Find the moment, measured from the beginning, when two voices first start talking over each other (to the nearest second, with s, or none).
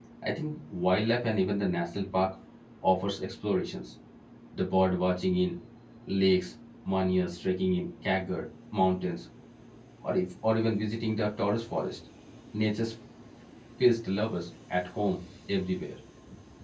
none